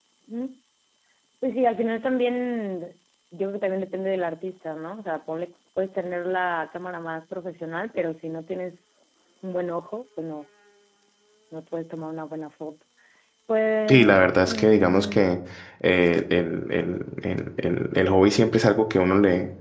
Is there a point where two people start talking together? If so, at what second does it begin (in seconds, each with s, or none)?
13.9 s